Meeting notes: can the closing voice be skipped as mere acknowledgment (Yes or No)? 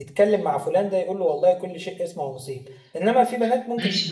No